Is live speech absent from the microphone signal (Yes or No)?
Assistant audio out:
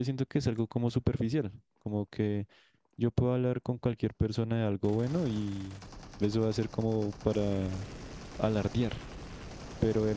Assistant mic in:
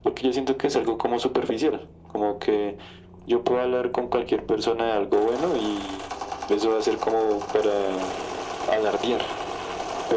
Yes